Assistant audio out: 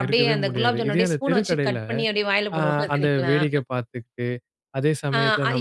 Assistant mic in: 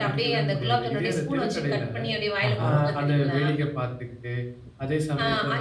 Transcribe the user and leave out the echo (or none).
ஆஹா.